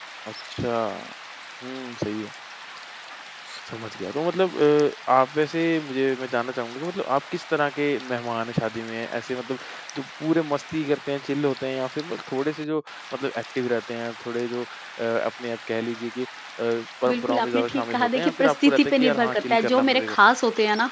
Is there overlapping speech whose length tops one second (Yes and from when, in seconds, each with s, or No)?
Yes, from 17.0 s